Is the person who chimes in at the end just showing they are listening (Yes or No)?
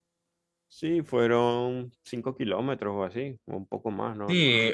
No